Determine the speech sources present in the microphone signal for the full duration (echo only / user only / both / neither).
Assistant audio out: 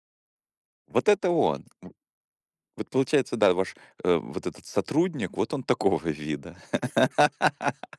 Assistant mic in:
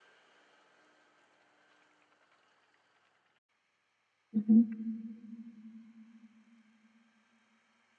user only